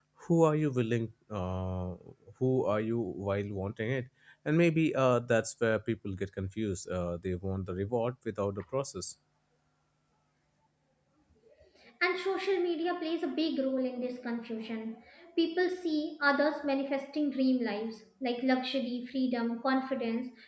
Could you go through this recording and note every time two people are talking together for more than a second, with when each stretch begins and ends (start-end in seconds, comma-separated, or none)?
none